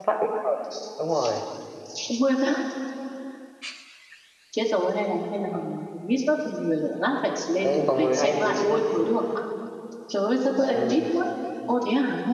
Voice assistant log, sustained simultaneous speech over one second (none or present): present